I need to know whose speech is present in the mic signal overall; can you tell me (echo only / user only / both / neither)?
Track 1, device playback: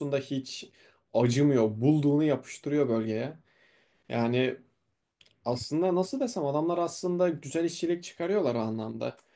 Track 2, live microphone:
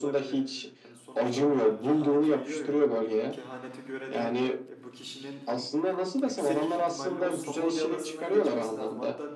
both